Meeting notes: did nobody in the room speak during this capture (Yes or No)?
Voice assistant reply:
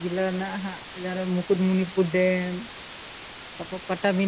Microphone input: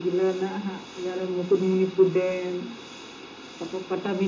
Yes